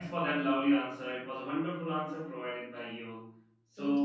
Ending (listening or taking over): listening